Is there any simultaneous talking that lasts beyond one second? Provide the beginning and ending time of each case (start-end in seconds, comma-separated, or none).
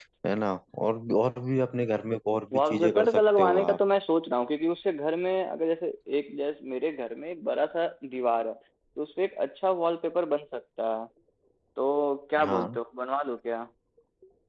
2.5-3.8